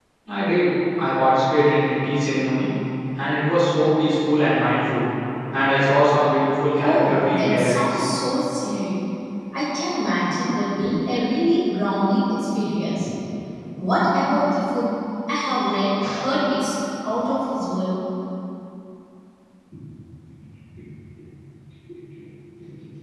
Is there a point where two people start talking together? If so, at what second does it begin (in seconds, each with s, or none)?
6.7 s